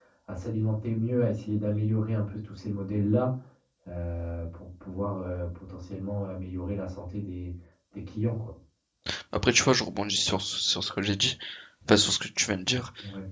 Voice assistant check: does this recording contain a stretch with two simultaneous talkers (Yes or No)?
No